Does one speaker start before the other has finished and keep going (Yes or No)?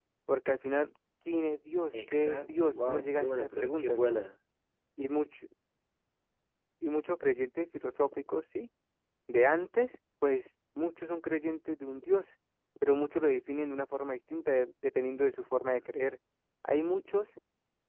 Yes